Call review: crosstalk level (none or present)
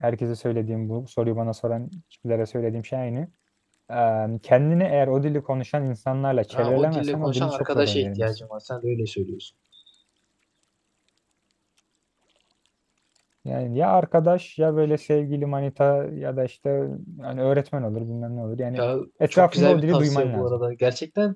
present